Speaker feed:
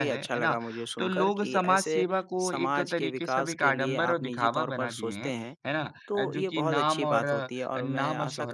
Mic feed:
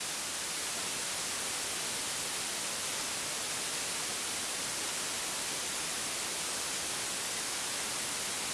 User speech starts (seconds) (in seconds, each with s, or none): none